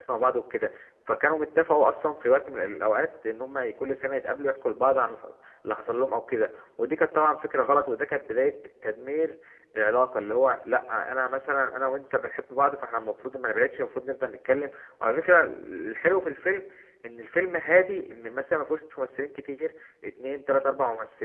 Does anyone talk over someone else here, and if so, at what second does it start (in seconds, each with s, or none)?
none